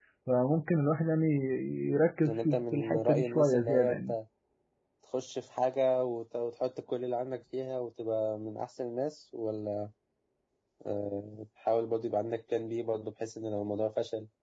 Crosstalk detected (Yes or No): Yes